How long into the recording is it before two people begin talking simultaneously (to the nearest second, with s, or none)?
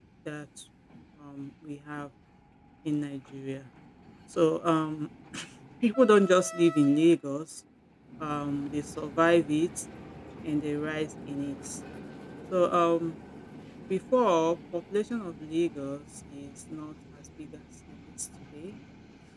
none